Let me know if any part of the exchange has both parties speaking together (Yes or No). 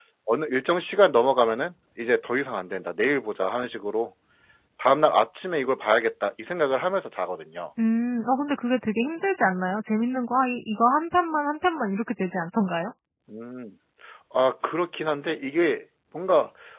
No